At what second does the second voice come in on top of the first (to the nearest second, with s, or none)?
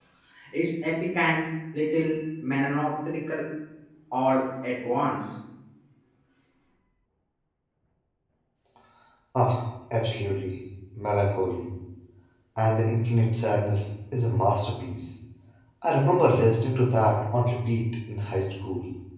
none